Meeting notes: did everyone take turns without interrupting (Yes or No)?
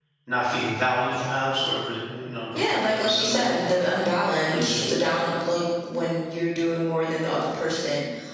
No